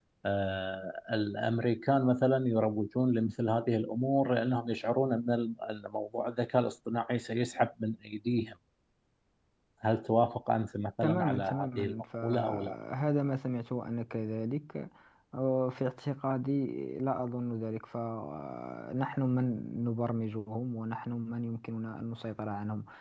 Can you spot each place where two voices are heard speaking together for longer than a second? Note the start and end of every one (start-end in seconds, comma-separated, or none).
11.0-12.7